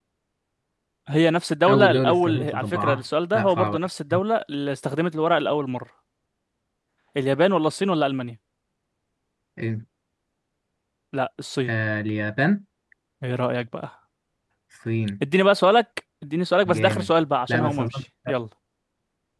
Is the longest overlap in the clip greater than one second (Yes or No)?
Yes